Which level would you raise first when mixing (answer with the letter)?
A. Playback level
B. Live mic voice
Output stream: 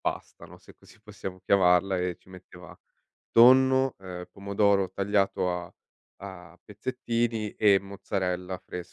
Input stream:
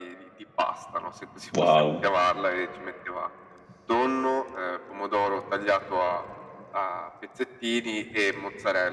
A